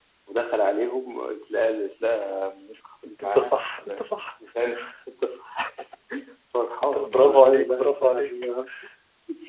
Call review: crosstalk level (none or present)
present